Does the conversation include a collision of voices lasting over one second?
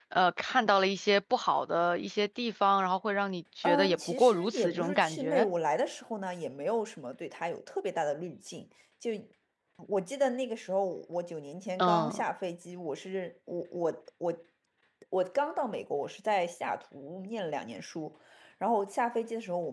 Yes, from 3.6 s

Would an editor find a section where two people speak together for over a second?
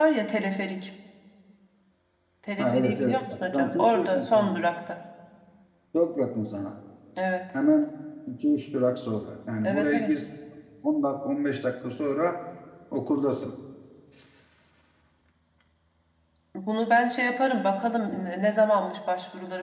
Yes, from 2.6 s

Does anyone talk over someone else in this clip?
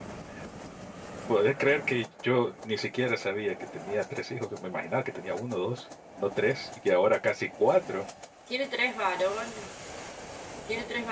No

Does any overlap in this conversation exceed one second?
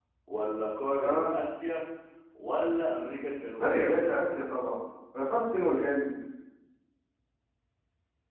No

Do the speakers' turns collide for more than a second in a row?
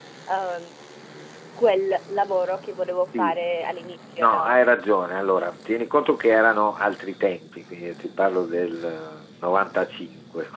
No

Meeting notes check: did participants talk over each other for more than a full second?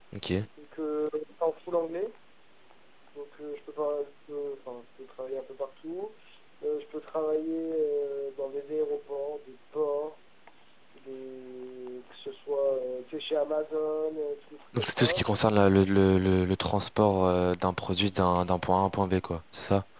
No

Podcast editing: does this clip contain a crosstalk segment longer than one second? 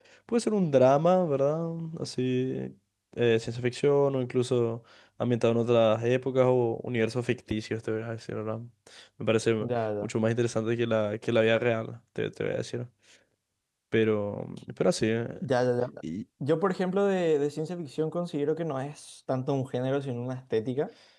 No

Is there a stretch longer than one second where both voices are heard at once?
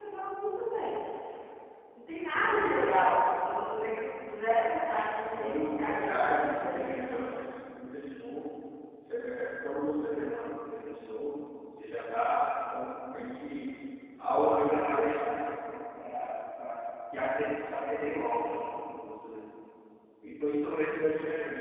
Yes, from 5.4 s

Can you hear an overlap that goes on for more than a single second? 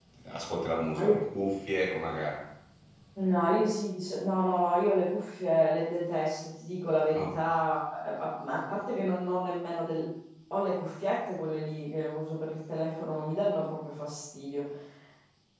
No

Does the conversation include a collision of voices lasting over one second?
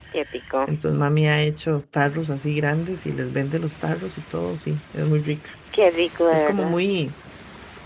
No

